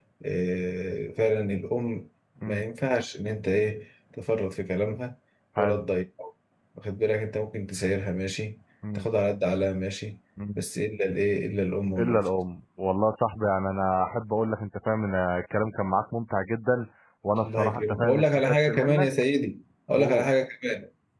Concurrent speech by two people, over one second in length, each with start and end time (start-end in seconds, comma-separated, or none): 17.4-19.1